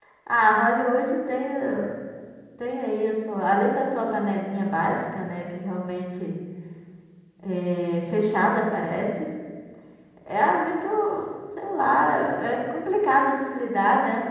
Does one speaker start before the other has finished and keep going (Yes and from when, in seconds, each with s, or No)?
No